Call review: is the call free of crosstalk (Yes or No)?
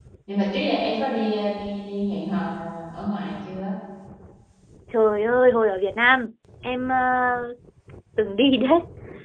Yes